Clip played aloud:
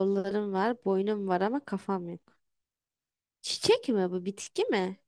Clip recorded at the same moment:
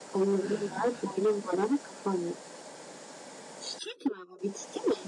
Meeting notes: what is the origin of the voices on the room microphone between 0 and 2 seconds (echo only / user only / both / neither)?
both